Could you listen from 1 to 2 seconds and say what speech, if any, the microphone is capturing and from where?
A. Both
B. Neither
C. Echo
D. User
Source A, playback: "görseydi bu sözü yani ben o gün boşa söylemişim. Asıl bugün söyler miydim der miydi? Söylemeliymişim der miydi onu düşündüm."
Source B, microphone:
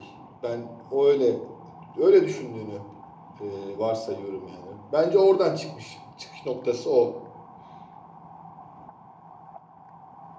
D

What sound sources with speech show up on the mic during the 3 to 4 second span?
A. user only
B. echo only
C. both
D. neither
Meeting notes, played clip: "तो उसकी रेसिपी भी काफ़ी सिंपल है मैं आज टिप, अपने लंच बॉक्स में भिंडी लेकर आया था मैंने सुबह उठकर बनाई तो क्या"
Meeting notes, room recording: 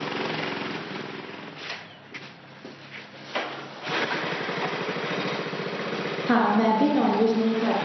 D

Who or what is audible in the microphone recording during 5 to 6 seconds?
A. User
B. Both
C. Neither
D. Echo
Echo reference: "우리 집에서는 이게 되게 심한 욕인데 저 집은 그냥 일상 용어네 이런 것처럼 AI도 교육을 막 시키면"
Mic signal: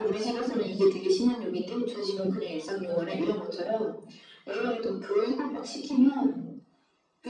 D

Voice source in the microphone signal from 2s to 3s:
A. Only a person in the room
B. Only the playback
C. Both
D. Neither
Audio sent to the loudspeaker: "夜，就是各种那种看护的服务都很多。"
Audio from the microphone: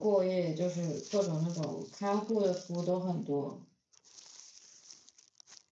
B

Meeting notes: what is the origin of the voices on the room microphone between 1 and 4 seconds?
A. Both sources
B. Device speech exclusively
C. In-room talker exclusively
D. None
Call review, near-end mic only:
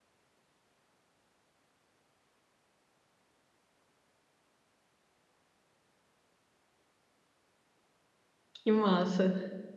D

